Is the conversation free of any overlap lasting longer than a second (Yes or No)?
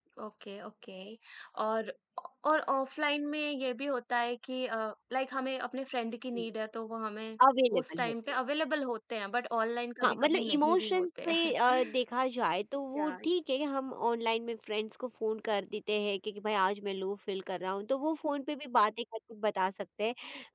No